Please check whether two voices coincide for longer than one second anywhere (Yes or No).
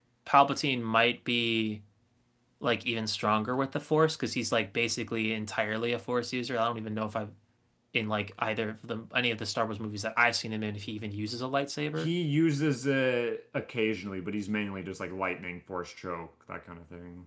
No